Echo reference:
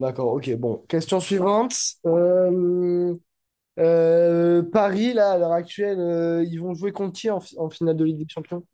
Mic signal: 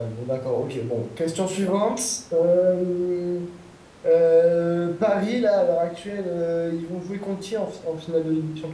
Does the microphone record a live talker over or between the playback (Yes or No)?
No